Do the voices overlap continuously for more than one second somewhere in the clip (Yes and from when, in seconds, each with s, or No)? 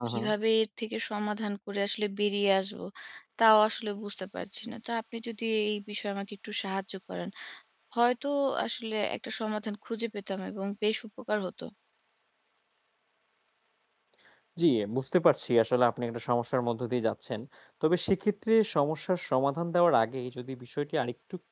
No